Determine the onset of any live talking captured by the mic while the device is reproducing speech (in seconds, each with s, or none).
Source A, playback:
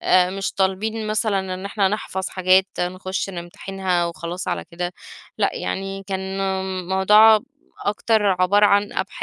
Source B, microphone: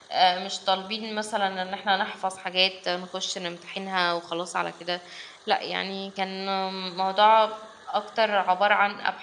none